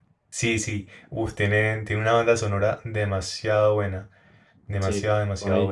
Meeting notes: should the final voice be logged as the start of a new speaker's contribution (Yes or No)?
Yes